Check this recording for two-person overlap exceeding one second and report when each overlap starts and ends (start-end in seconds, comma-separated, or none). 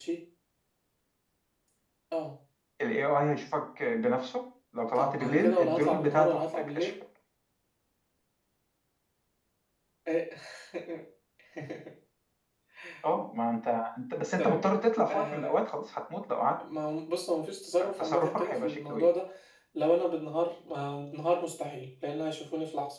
5.0-6.9, 17.8-19.1